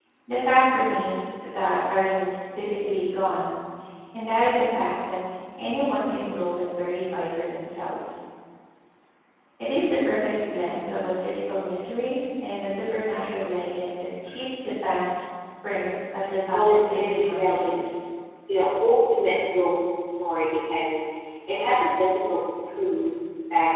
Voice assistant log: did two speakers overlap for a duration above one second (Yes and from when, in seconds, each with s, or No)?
Yes, from 16.5 s